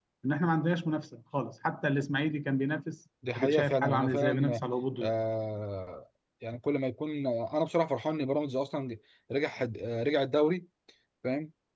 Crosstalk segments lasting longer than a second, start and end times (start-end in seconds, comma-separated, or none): 3.4-4.6